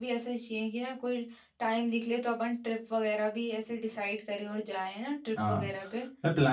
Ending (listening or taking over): taking over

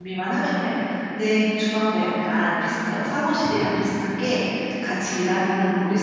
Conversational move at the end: listening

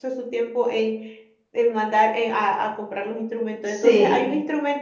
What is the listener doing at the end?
listening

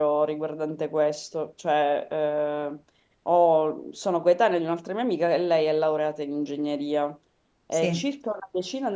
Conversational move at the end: listening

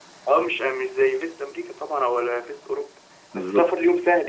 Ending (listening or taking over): listening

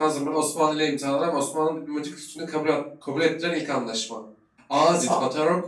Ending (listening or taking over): listening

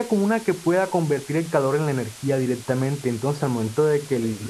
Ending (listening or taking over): listening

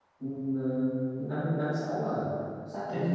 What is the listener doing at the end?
taking over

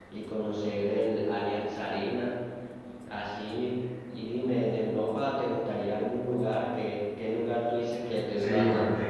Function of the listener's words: taking over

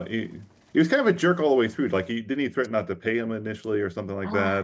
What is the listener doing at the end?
taking over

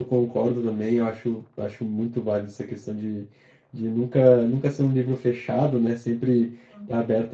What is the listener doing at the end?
listening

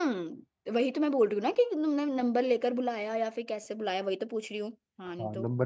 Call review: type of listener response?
taking over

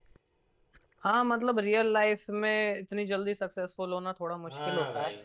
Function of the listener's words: taking over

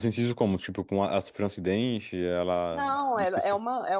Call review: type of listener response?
taking over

